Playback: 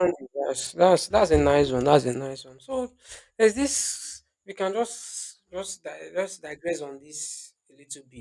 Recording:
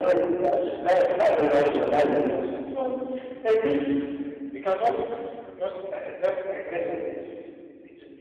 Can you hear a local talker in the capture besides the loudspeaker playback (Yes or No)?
No